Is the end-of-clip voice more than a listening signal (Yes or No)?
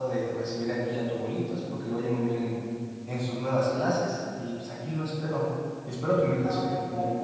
Yes